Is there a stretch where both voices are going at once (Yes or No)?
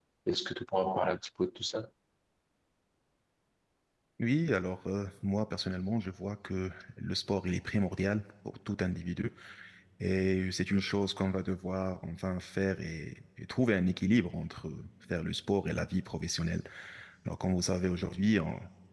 No